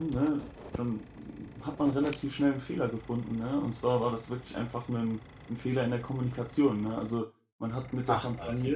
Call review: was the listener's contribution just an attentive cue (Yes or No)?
Yes